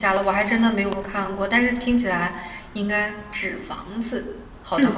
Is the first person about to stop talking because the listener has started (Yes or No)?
Yes